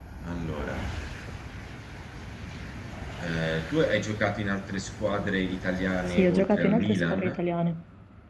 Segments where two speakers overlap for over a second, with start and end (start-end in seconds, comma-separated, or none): 6.1-7.3